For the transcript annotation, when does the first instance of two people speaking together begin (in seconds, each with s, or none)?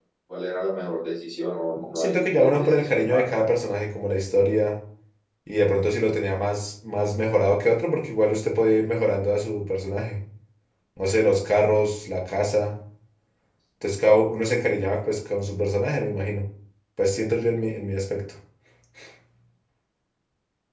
1.8 s